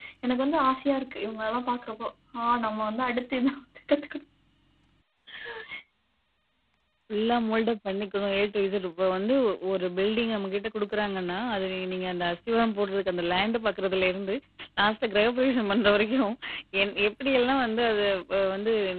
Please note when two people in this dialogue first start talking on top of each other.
none

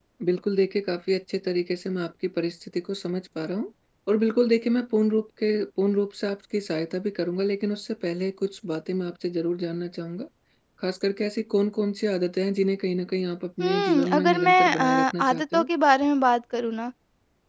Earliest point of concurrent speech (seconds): 13.6 s

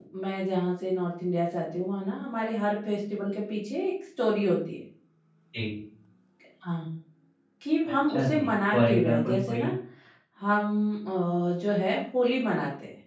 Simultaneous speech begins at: 8.1 s

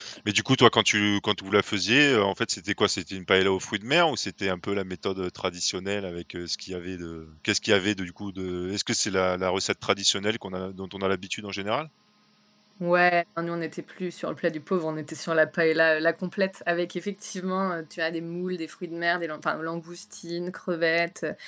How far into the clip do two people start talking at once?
none

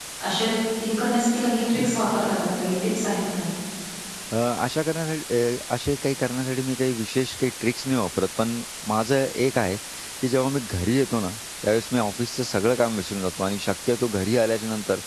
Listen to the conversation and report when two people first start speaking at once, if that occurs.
none

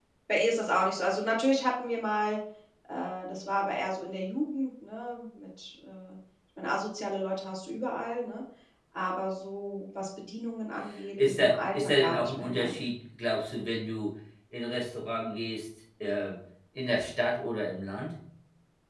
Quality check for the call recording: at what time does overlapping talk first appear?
11.2 s

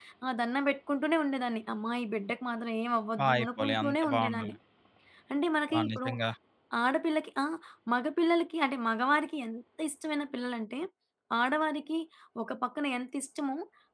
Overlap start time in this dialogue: 3.2 s

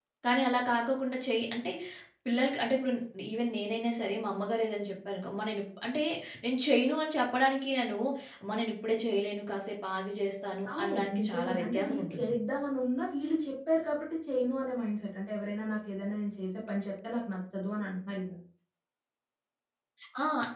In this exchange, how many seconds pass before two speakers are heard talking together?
10.8 s

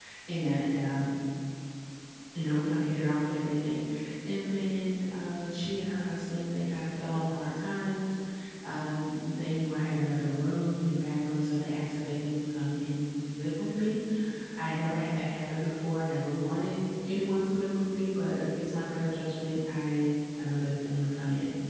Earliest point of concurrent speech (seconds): none

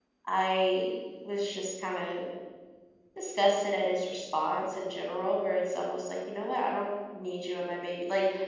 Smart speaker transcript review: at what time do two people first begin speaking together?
none

